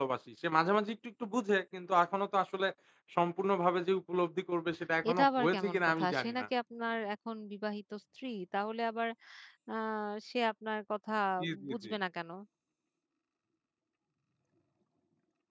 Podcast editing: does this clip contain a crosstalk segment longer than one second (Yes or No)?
Yes